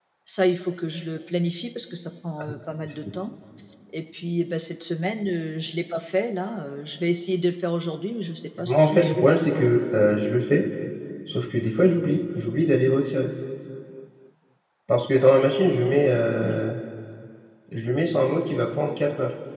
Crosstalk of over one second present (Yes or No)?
Yes